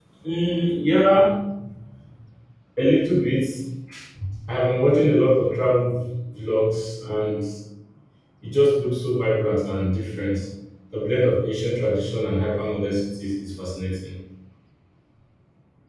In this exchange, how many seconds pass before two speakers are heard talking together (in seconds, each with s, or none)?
none